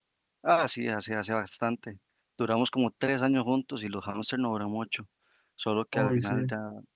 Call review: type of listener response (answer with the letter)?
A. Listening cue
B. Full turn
A